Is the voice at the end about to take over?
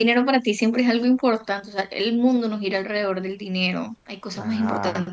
Yes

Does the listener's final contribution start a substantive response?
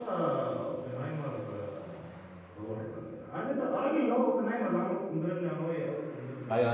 Yes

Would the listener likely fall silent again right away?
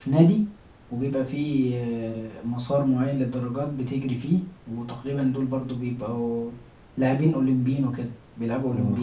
No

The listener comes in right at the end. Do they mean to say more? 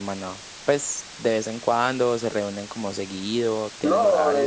Yes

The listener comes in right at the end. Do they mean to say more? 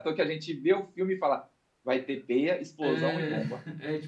Yes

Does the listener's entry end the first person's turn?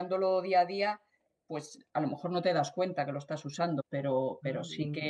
No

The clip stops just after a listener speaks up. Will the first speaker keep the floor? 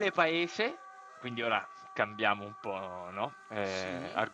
Yes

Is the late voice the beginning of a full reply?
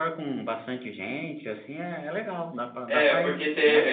Yes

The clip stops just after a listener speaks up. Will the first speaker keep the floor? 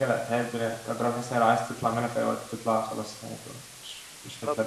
No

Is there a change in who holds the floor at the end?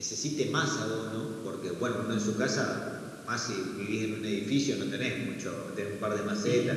No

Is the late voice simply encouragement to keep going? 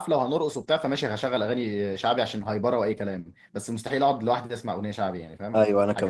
No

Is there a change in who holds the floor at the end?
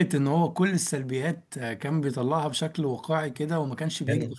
No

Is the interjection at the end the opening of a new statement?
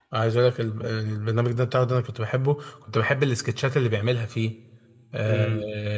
Yes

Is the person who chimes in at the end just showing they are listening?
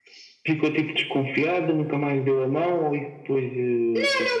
No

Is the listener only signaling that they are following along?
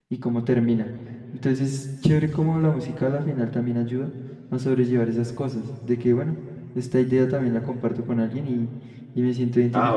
No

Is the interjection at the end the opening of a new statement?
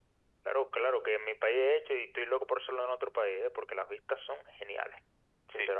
Yes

